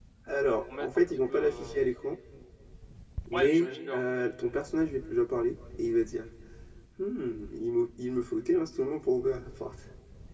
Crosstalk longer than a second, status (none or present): present